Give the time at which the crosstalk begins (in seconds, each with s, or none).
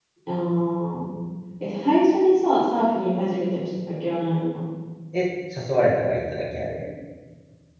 none